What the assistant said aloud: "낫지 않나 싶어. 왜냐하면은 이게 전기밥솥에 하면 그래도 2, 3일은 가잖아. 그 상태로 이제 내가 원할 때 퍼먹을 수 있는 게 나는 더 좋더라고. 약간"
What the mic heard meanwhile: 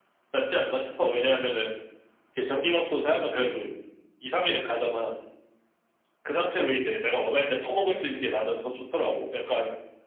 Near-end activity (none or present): none